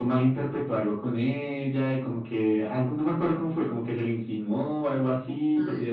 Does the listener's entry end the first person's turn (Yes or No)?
No